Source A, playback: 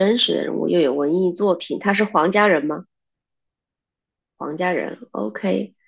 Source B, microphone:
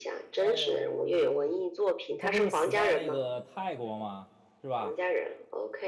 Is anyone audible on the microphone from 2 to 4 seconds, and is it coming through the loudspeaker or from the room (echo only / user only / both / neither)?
both